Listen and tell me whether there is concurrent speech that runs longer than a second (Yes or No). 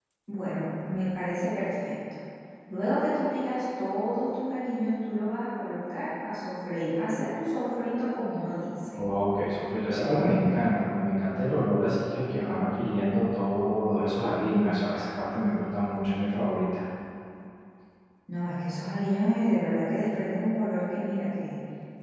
No